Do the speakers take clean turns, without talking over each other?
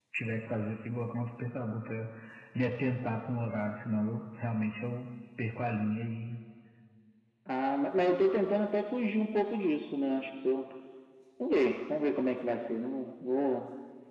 Yes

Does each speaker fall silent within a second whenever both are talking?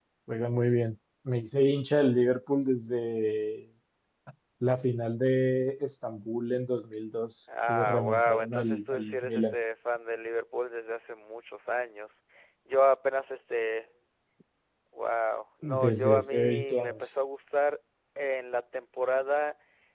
No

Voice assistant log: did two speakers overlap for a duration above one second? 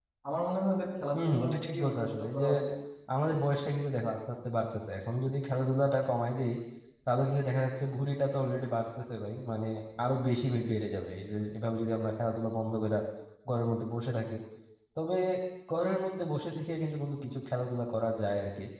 Yes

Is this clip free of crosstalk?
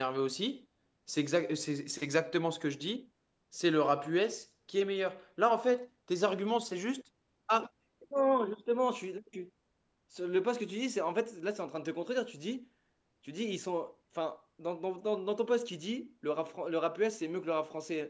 Yes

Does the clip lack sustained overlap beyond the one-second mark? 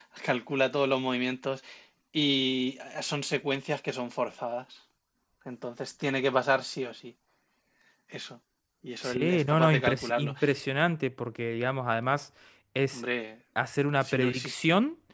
No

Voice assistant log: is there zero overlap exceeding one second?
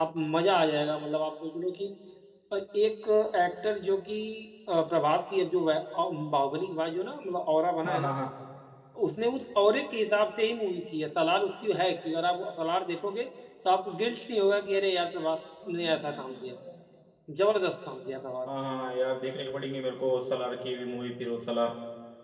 Yes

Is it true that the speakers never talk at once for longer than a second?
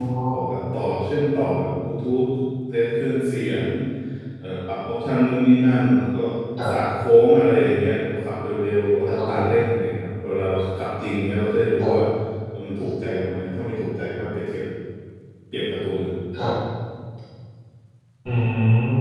Yes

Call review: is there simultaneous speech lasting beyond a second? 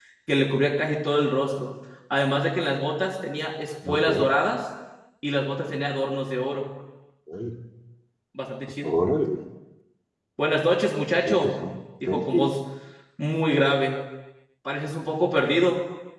No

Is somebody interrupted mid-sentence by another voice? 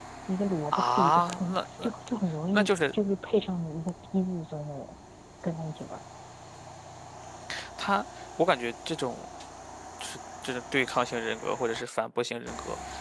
Yes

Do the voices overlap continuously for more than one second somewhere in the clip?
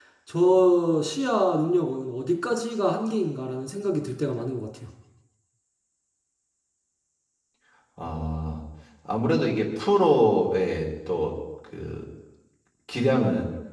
No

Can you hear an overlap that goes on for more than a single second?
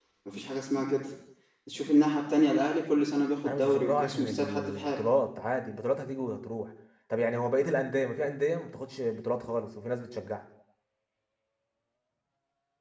Yes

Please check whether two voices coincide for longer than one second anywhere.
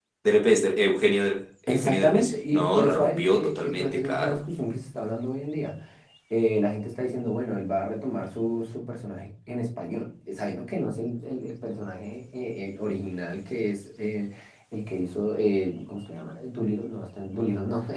Yes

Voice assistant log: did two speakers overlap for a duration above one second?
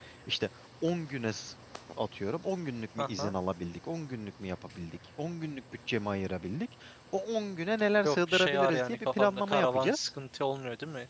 Yes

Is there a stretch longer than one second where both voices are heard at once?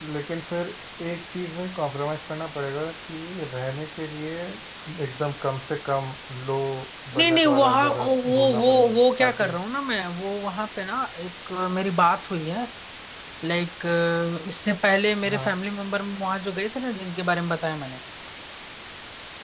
Yes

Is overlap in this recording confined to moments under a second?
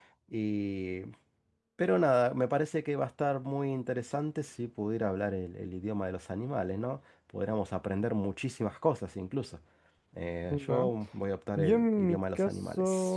No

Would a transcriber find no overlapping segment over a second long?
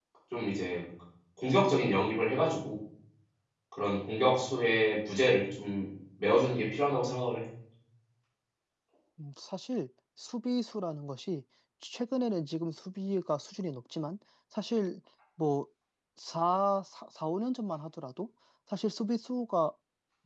Yes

